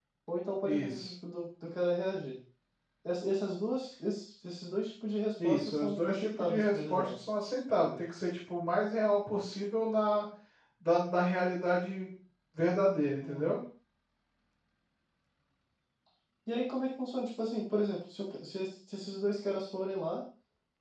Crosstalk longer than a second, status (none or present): present